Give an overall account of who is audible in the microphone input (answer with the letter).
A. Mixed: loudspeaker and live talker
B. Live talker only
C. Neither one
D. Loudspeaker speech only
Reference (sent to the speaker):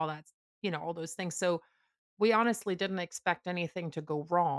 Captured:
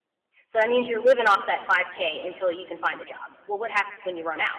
B